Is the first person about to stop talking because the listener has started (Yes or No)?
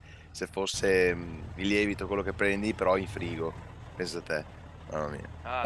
Yes